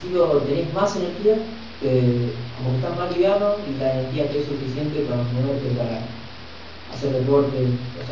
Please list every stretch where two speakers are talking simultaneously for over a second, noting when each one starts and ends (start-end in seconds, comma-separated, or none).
none